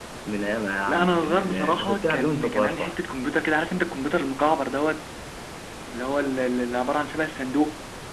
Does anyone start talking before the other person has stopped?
Yes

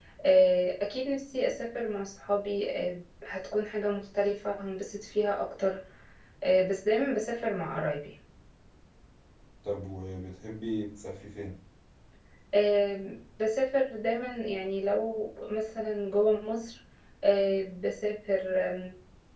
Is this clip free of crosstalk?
Yes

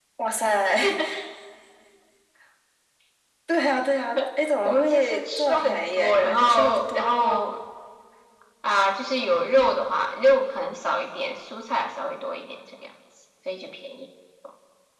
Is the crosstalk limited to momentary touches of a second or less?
No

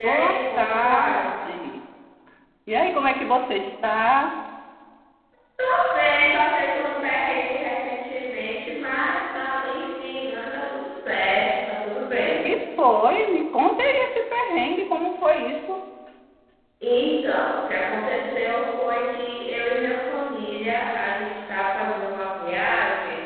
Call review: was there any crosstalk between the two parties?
Yes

